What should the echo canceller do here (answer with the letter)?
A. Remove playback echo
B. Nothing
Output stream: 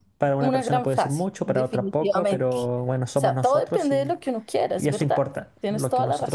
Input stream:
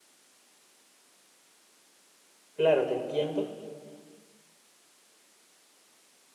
B